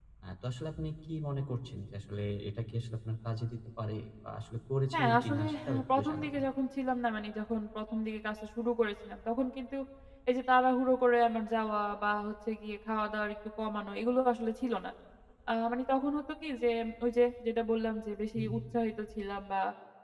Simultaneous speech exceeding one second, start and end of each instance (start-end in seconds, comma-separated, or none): 4.9-6.4